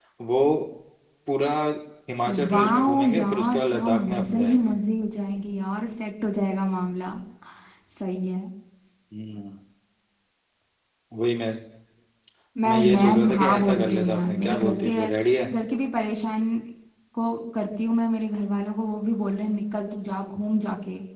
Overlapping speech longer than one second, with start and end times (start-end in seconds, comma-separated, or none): 2.5-4.7, 12.6-14.9